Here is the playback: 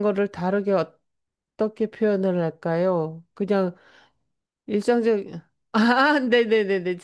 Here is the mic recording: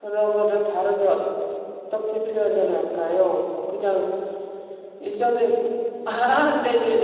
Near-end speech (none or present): none